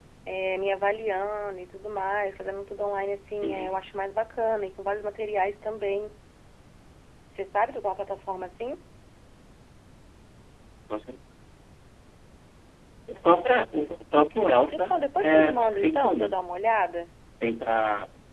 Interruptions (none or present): present